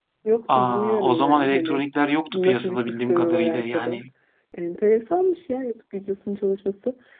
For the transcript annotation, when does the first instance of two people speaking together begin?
0.5 s

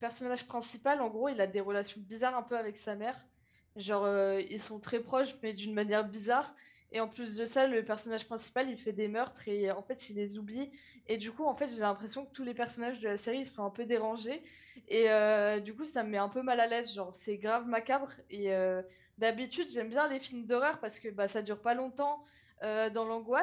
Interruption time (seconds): none

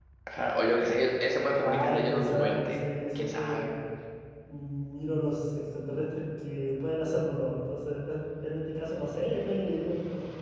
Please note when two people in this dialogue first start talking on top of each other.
1.6 s

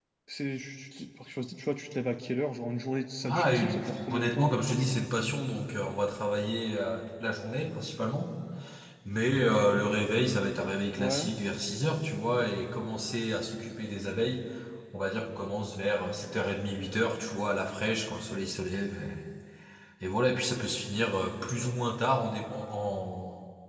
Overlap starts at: 3.2 s

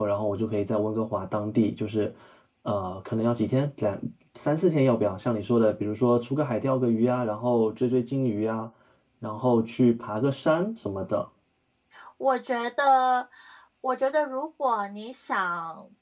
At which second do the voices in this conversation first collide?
none

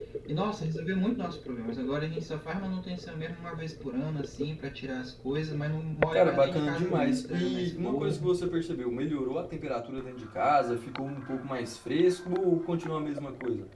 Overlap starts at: 6.1 s

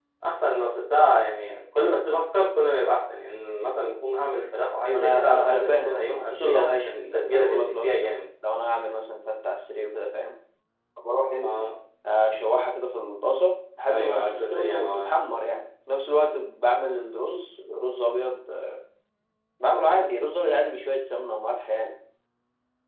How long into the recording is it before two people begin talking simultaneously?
4.9 s

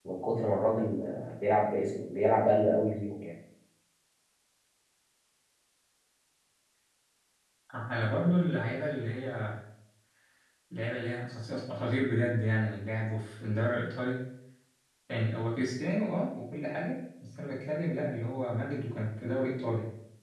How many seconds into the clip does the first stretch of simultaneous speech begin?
none

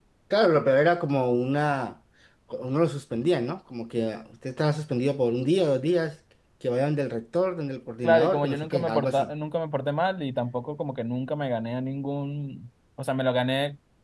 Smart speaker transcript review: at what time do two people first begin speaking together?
8.0 s

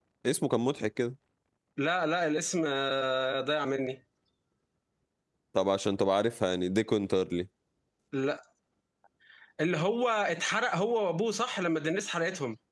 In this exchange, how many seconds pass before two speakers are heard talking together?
none

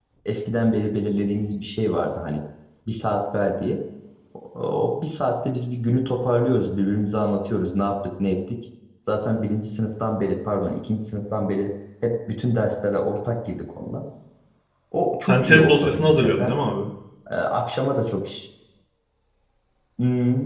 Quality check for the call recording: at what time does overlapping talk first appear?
15.3 s

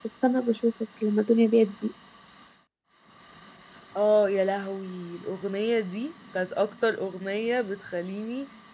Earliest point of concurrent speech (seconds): none

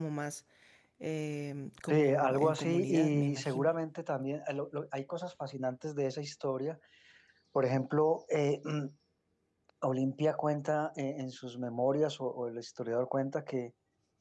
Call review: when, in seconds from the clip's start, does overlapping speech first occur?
1.9 s

